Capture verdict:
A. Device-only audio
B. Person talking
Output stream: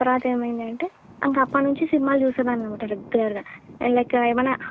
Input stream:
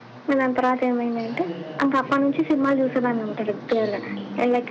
B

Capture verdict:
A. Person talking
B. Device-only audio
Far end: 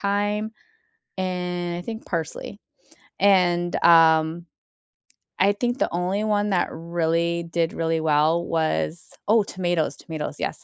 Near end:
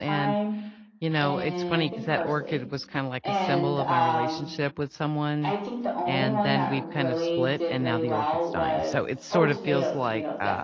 A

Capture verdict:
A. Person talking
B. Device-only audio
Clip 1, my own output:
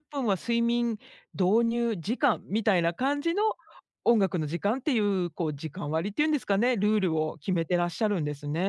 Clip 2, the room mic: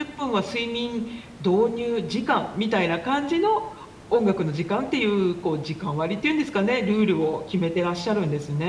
B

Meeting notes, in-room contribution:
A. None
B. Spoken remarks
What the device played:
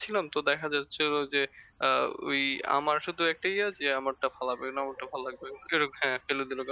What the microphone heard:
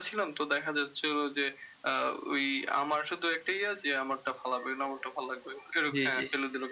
B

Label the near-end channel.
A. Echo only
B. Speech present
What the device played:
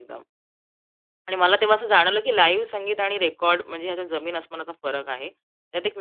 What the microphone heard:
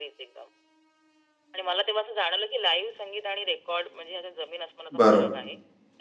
B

